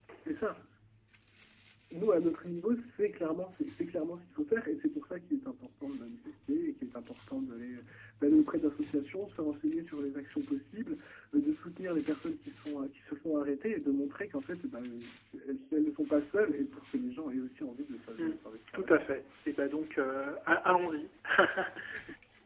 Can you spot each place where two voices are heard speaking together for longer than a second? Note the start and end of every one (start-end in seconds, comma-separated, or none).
none